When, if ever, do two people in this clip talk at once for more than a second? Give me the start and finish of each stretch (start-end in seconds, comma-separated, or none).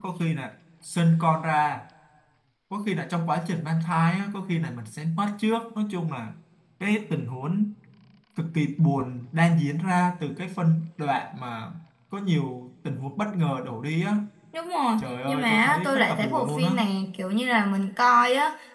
15.0-16.8